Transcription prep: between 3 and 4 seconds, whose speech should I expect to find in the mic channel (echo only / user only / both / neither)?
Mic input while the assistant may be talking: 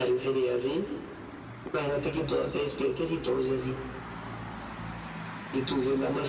echo only